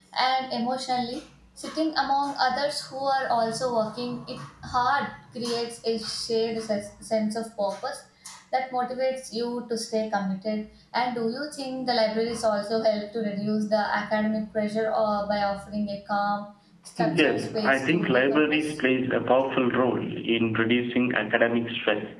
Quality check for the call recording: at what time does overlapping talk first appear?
17.0 s

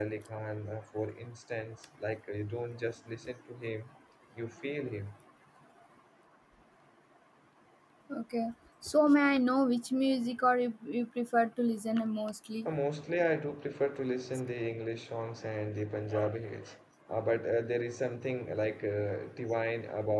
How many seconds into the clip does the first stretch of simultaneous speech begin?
none

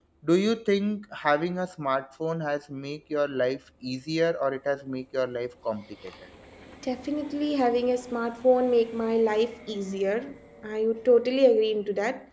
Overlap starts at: none

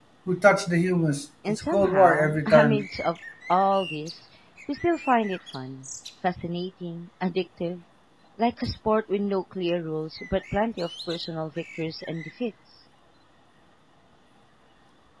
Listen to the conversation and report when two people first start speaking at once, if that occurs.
1.4 s

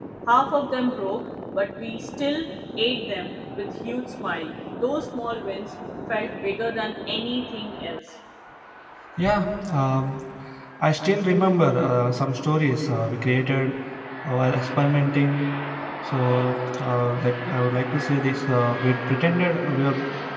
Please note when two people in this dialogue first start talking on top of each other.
none

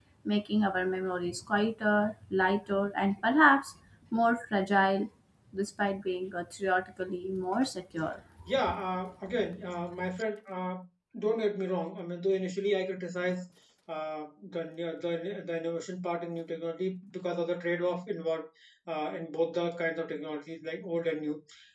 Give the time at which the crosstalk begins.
none

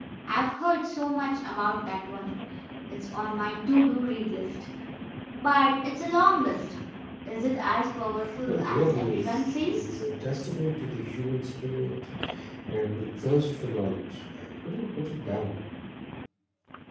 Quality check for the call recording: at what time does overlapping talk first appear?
8.4 s

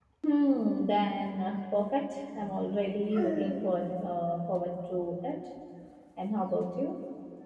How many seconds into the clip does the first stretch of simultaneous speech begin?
none

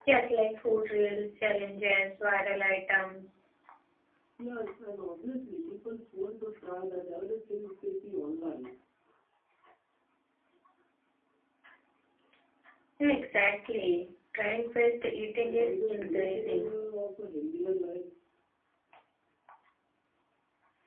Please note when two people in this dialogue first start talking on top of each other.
15.4 s

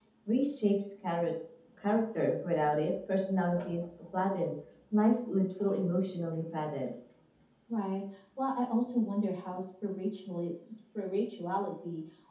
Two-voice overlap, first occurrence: none

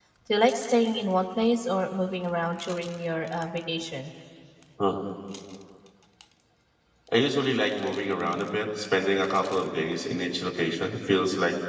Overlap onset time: none

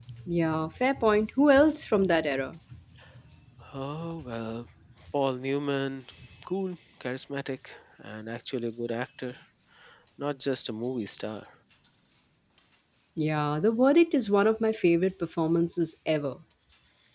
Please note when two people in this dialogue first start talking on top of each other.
none

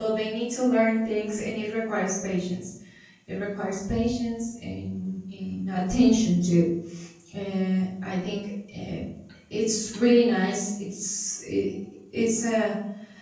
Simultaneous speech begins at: none

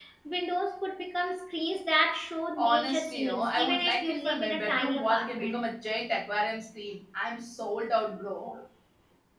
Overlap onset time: 2.6 s

